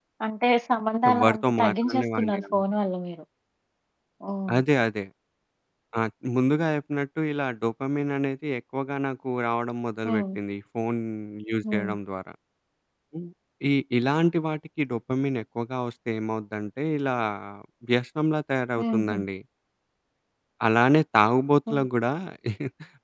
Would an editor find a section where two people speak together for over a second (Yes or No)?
Yes